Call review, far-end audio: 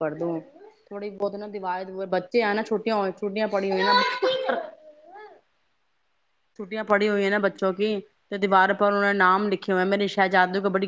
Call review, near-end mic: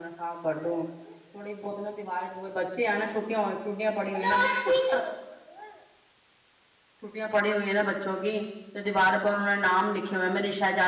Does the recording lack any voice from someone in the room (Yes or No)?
Yes